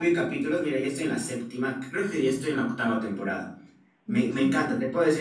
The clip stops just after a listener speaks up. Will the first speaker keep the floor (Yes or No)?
Yes